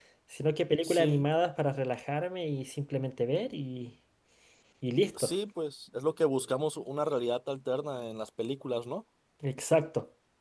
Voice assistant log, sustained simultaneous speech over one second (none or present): none